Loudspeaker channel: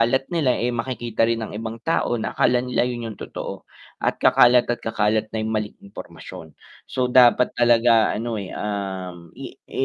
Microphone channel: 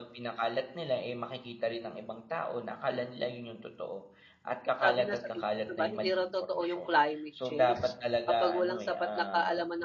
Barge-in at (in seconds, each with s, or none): 4.8 s